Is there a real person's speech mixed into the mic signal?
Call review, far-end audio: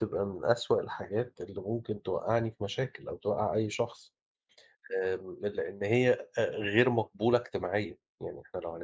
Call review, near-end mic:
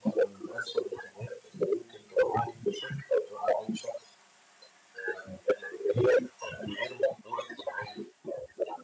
No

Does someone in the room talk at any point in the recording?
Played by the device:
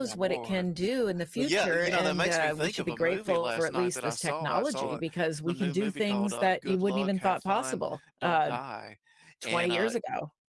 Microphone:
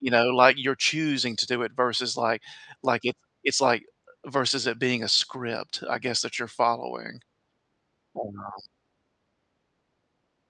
Yes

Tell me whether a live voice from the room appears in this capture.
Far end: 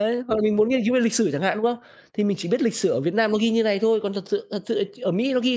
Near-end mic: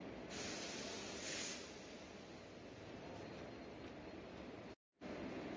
No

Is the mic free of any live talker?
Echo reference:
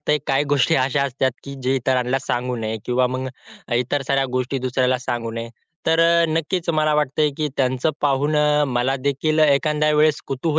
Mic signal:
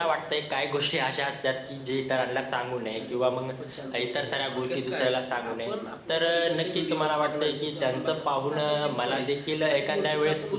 No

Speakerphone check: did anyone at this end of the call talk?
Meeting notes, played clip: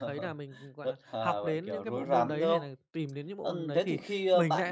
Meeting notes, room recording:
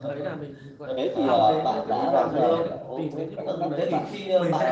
Yes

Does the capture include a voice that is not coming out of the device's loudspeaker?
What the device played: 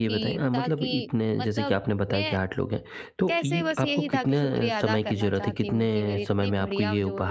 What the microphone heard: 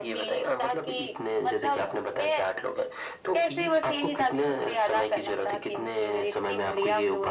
No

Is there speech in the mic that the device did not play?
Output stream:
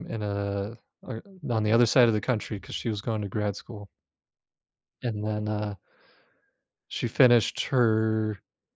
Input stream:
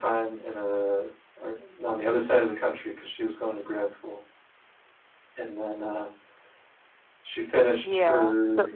Yes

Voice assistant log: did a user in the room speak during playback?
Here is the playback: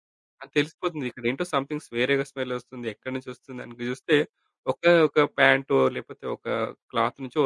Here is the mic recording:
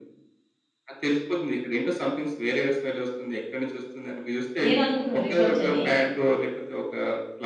Yes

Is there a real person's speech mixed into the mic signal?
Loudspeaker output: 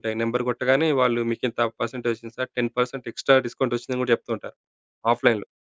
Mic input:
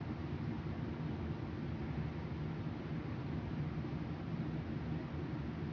No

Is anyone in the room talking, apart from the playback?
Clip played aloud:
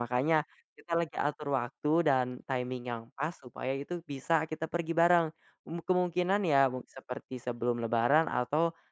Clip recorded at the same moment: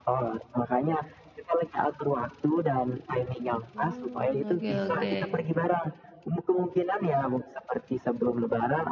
Yes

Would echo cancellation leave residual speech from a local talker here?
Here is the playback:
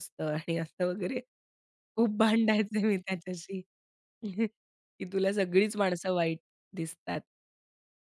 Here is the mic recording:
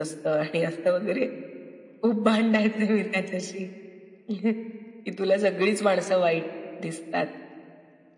No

